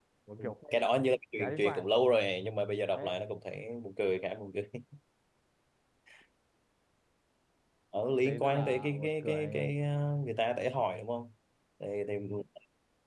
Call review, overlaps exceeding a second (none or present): present